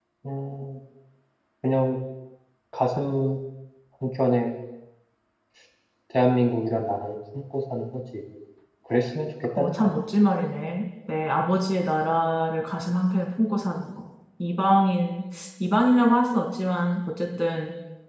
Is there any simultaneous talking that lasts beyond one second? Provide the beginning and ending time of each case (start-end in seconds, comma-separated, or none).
none